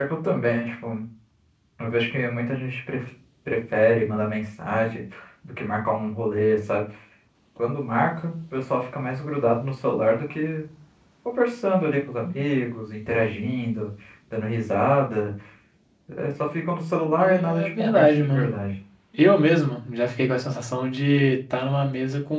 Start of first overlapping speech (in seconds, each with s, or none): 17.2 s